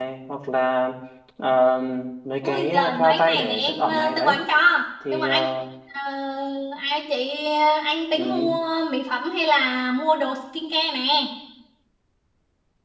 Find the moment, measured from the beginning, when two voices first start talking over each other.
2.4 s

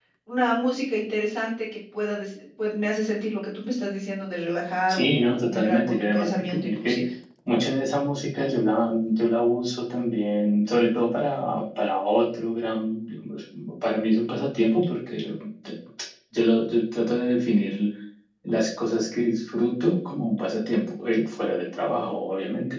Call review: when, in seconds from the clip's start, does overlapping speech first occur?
4.9 s

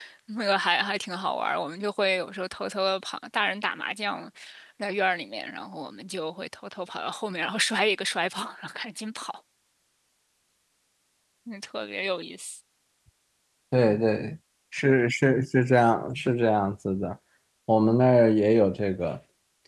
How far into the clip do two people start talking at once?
none

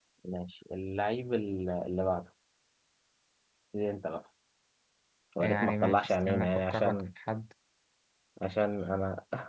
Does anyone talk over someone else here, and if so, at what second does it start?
5.4 s

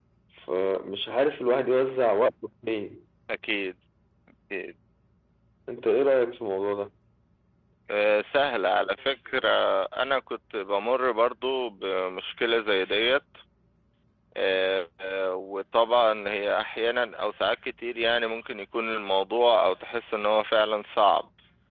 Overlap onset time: none

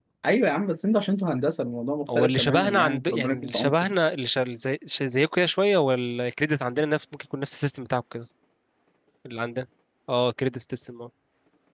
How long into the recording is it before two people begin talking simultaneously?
2.1 s

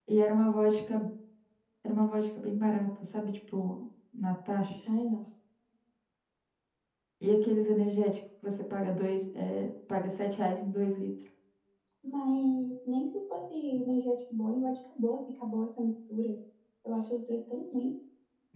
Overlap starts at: none

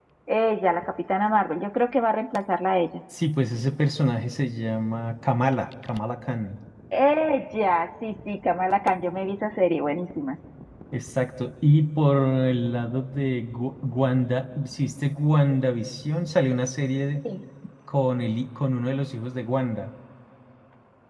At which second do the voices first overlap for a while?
none

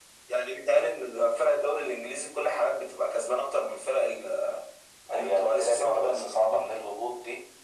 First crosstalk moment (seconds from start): 5.1 s

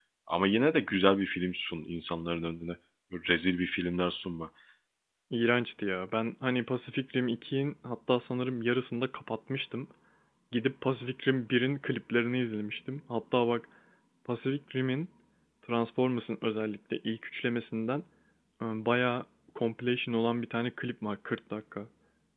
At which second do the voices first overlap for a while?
none

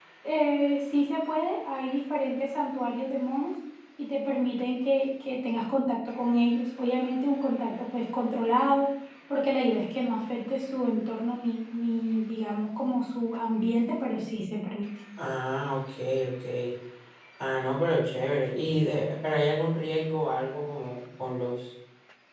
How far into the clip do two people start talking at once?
none

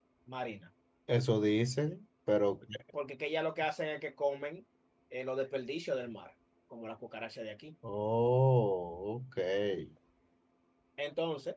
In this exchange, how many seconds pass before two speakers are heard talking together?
none

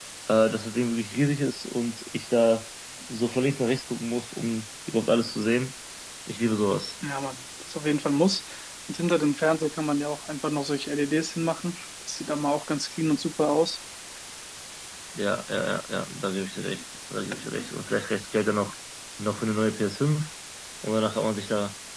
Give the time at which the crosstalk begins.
none

